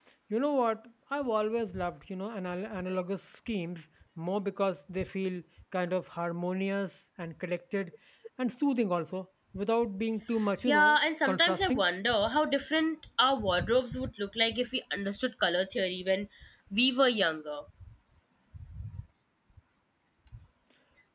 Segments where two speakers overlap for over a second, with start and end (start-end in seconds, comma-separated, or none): 10.7-11.9